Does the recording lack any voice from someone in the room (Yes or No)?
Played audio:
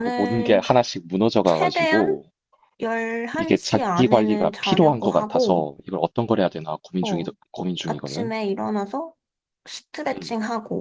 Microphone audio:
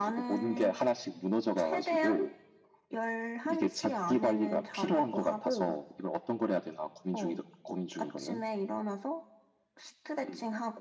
Yes